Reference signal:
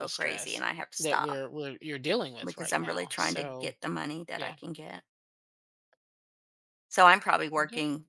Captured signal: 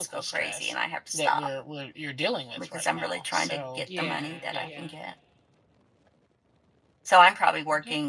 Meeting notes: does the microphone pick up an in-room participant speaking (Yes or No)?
Yes